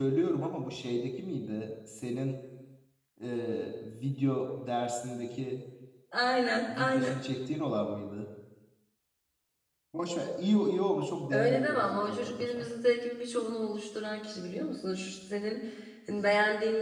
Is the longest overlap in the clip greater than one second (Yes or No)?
Yes